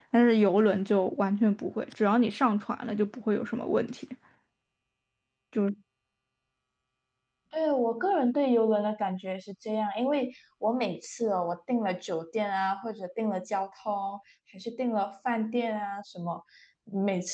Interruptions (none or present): none